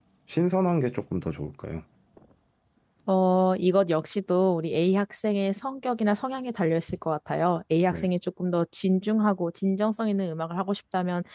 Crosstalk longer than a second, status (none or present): none